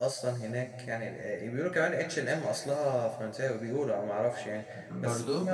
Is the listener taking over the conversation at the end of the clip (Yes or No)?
No